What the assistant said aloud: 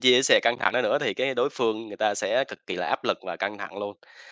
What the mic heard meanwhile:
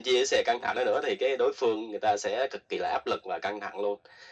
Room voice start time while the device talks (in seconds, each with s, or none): none